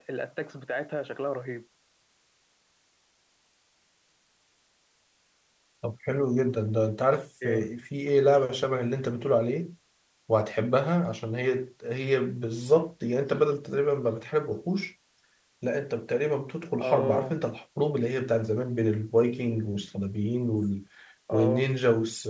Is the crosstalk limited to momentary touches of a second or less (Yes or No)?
Yes